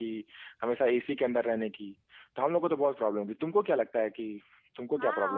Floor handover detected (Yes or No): Yes